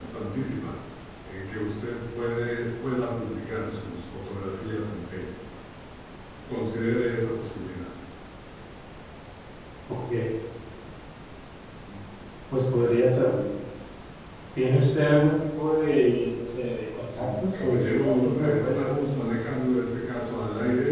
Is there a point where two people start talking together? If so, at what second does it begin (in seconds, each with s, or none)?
17.1 s